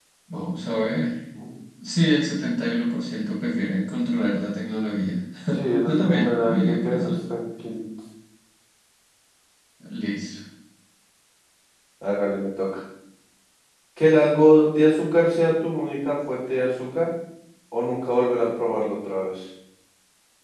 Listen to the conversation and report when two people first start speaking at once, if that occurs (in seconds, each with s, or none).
5.9 s